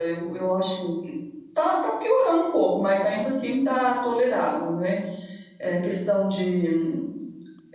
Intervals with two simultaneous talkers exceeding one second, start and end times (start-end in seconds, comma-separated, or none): none